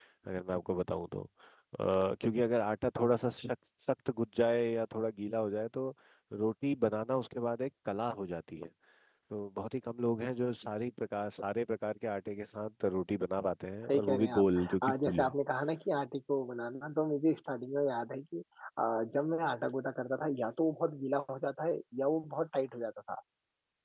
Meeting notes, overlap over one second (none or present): present